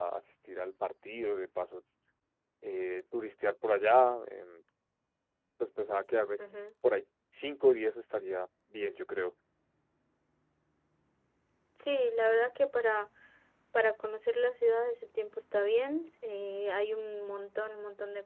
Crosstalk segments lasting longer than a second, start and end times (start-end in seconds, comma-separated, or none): none